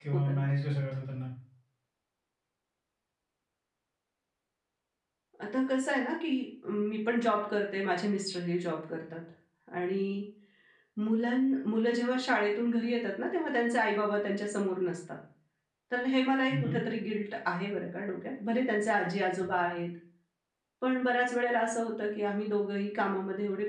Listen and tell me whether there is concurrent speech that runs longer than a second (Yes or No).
No